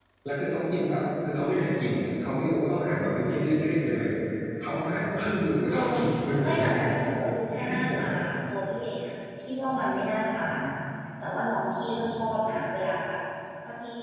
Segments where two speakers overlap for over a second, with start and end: none

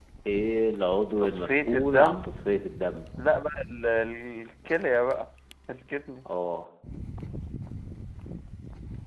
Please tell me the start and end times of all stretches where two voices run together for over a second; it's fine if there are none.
1.2-2.4

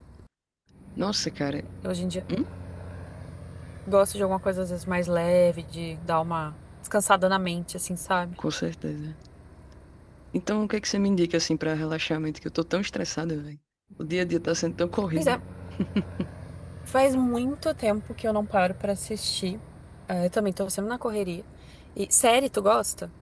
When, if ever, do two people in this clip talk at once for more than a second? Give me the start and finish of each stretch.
none

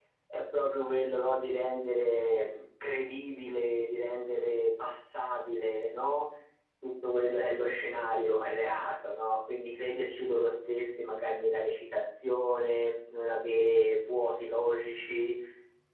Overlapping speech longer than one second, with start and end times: none

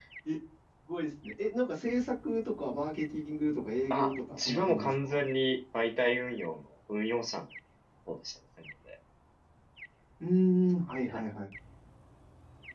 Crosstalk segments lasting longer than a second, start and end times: 3.9-5.2

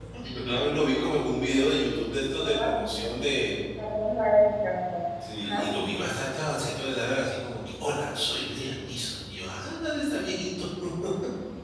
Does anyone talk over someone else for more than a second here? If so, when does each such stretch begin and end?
none

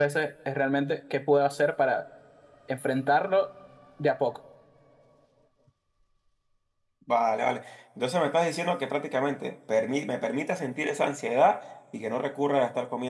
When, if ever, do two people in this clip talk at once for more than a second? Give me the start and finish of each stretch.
none

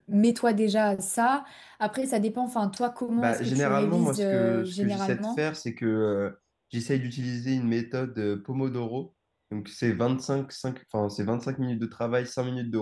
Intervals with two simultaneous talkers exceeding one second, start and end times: 3.2-5.4

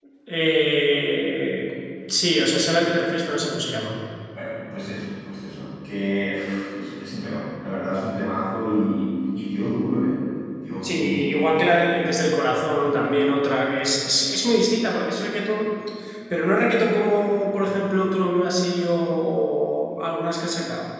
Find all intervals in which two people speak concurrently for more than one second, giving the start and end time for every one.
10.8-12.1

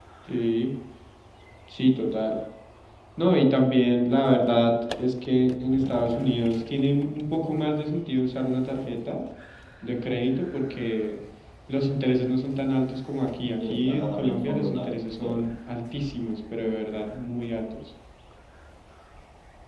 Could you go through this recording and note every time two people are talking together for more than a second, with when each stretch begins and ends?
13.6-15.3

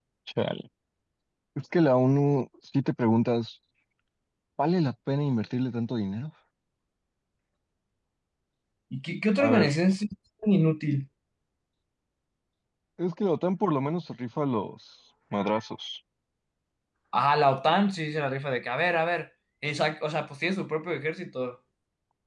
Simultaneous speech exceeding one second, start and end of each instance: none

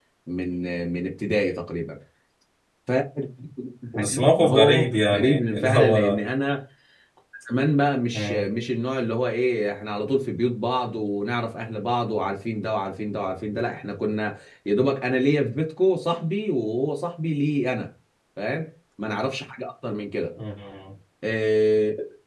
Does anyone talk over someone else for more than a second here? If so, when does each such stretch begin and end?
4.0-6.2

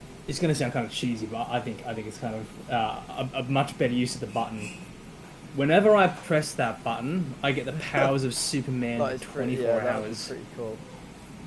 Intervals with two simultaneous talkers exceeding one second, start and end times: 8.9-10.3

